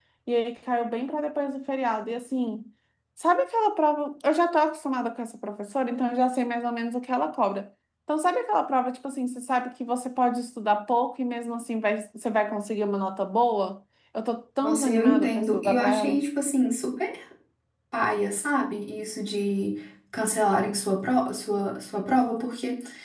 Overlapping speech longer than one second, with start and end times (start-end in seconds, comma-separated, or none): 14.6-16.2